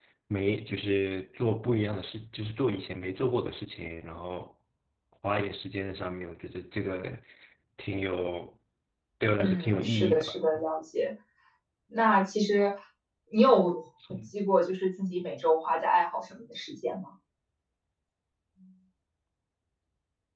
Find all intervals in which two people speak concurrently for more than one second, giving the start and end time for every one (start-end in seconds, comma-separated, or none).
9.4-10.6